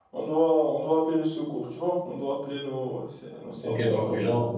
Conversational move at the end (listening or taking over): taking over